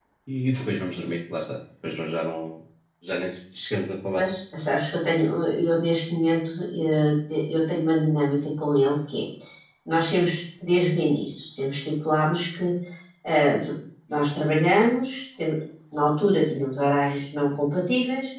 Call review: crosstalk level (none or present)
none